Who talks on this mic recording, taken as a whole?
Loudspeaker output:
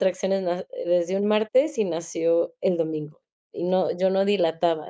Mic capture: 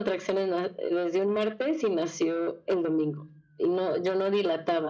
echo only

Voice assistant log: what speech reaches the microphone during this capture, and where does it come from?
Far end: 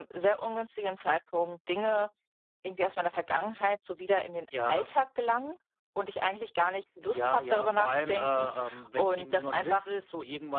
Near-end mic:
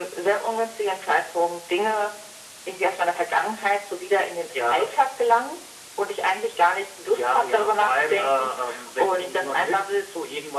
echo only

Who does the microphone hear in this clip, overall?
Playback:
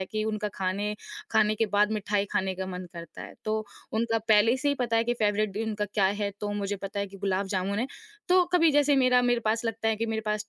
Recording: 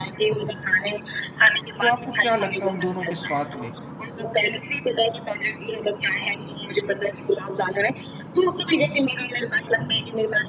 both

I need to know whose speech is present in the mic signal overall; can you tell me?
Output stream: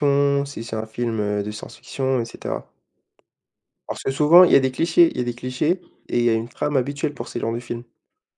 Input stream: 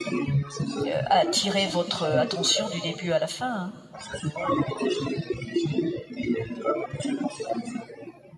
both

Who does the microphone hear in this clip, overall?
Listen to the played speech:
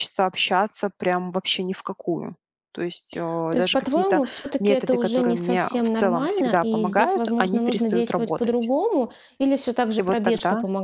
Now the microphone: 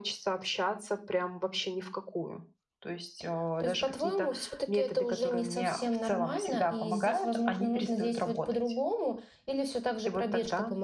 echo only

